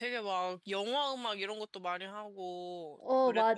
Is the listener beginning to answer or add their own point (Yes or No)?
Yes